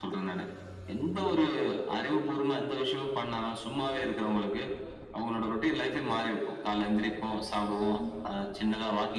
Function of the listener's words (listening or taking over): listening